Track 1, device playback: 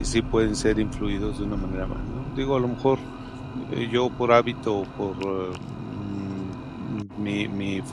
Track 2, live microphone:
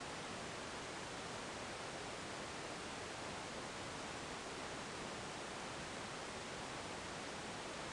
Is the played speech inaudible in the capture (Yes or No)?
Yes